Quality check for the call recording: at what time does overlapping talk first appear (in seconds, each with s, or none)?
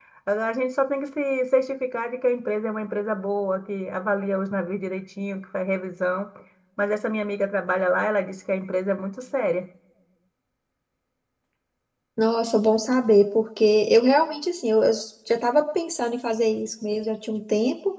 none